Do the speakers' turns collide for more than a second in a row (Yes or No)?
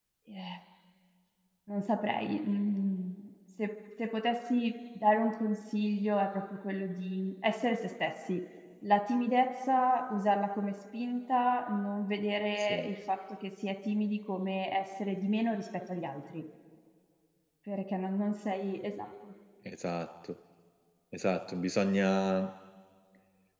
No